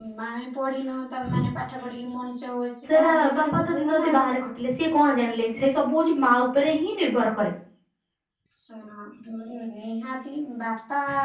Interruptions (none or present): present